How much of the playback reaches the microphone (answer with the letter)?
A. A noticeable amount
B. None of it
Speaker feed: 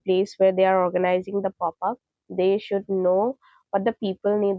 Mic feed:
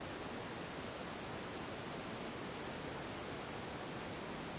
B